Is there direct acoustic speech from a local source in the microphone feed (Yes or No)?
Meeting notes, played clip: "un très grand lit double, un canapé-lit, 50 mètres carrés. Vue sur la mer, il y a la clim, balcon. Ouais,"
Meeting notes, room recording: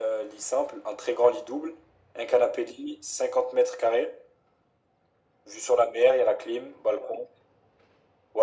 No